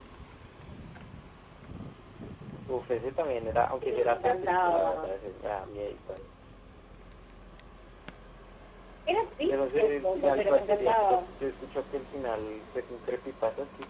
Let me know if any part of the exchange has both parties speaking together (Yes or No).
Yes